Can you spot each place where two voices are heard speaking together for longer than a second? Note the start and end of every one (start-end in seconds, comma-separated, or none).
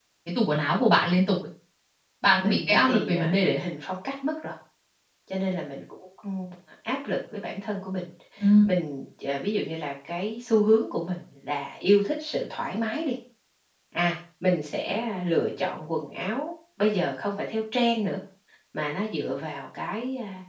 2.4-3.6